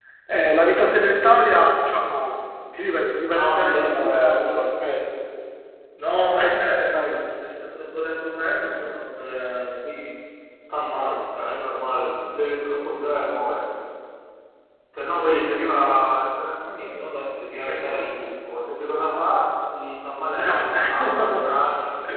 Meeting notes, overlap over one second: present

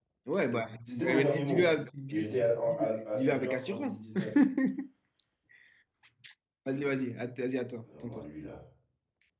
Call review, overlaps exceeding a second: present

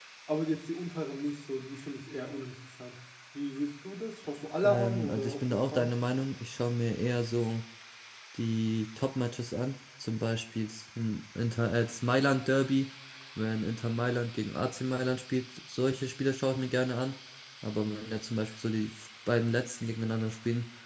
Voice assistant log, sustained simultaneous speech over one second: present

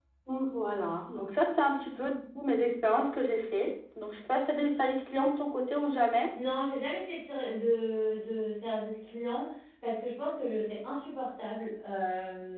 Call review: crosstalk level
none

